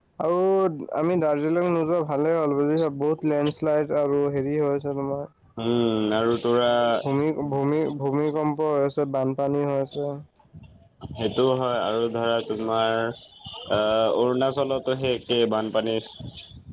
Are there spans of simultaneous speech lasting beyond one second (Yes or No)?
No